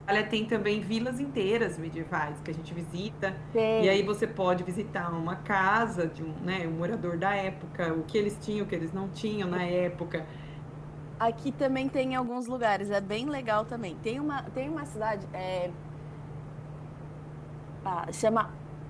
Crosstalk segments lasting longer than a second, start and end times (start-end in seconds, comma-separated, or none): none